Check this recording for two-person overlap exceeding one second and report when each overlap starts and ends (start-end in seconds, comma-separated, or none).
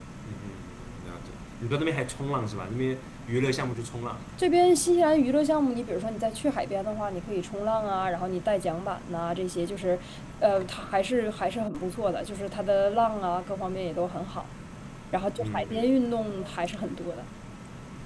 none